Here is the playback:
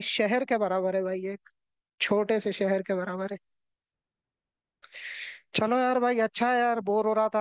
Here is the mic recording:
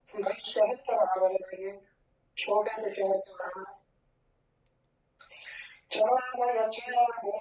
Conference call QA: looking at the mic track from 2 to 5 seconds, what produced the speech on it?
echo only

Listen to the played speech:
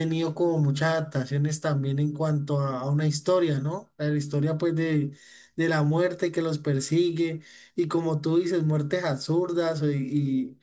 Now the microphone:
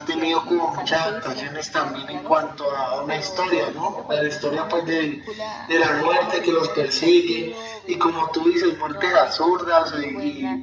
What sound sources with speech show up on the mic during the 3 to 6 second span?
both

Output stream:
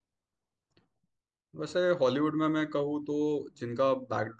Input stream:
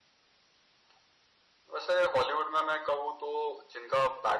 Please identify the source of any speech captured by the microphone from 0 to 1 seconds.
neither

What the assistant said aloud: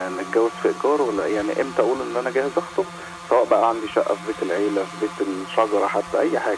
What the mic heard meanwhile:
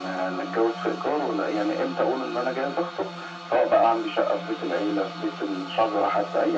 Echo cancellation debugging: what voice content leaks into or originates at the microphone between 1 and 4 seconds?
echo only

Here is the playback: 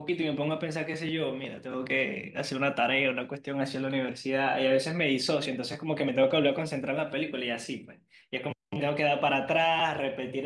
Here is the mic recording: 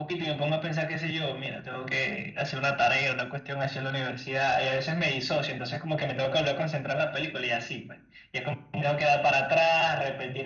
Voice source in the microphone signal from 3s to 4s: echo only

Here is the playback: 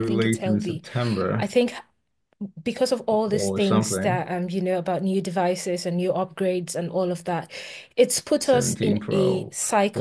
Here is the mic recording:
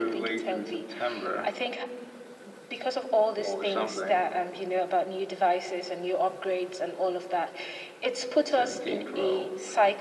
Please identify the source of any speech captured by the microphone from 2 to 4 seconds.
echo only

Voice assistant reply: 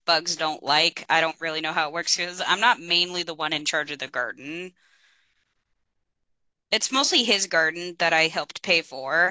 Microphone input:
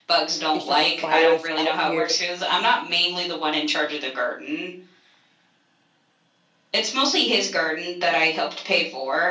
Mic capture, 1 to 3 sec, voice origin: both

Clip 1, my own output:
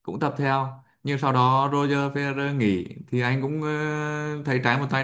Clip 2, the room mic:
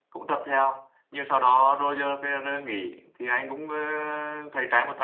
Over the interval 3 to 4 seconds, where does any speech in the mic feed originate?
echo only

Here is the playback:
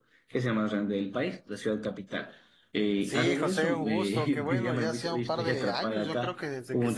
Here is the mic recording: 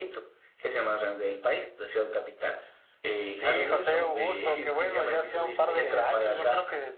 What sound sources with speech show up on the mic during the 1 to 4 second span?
echo only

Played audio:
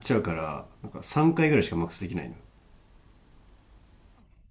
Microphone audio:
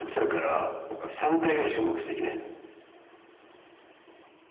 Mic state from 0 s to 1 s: echo only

